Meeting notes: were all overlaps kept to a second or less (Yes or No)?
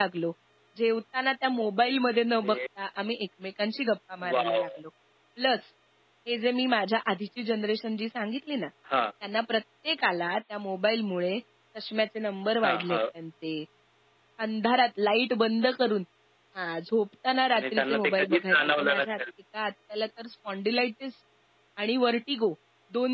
No